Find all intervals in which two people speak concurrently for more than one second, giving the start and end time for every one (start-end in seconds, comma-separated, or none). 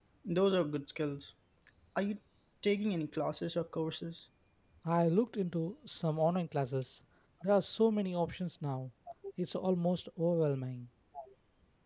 none